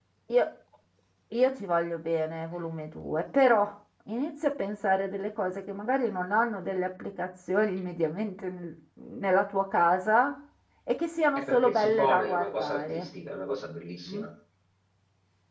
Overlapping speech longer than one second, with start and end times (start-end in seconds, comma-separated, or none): 11.4-13.1